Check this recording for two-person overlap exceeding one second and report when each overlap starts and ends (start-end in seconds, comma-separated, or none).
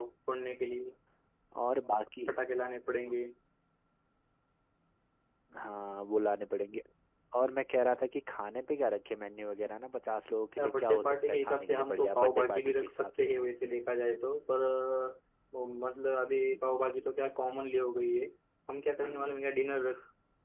10.6-13.3